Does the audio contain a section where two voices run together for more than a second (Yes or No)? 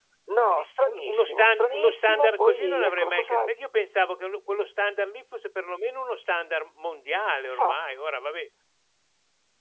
Yes